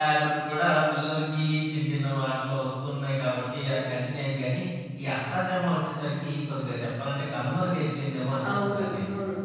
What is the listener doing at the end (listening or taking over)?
taking over